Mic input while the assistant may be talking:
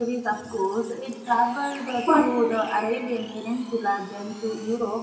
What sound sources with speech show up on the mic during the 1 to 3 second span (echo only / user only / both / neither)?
user only